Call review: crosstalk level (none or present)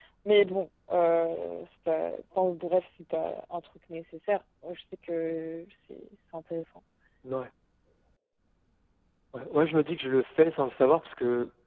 none